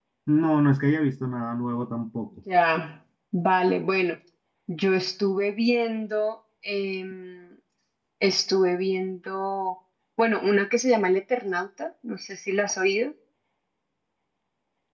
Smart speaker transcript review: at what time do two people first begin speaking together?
none

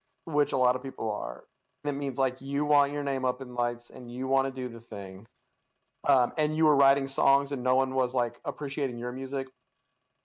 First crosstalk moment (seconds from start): none

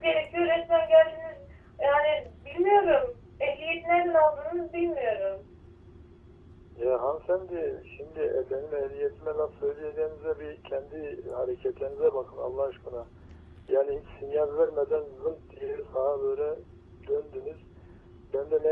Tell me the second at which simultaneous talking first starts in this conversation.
none

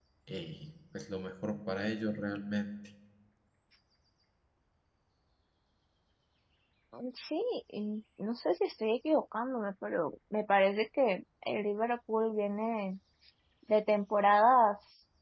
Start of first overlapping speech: none

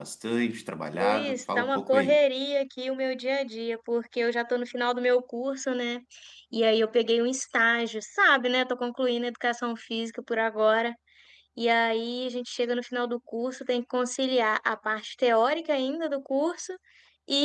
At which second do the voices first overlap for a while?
1.0 s

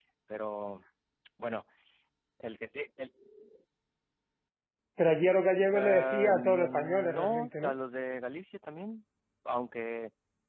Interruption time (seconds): 5.7 s

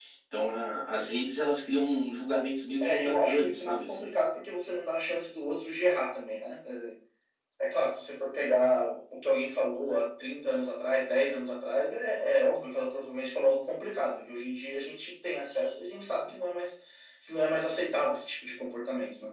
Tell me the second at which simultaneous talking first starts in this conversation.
2.8 s

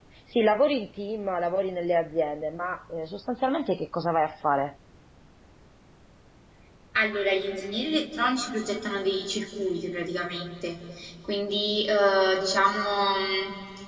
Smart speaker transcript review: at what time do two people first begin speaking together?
none

